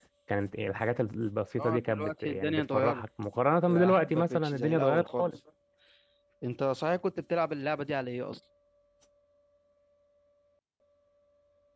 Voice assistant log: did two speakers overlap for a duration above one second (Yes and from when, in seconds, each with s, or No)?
Yes, from 1.6 s